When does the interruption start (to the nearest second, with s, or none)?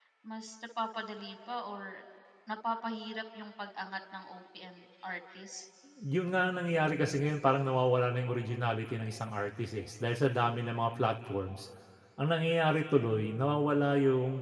none